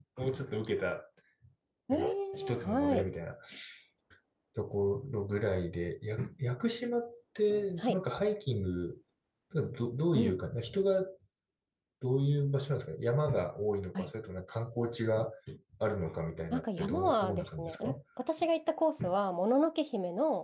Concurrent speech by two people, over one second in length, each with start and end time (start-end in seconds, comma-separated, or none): 1.9-3.1, 16.5-18.0